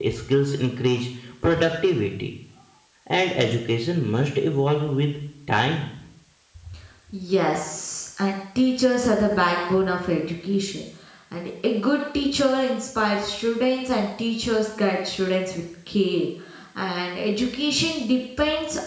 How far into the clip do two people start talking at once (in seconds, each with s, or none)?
none